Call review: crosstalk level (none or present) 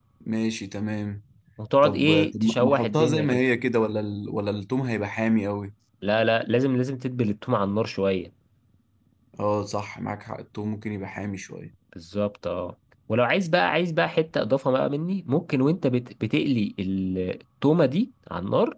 present